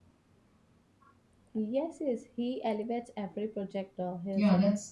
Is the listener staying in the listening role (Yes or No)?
No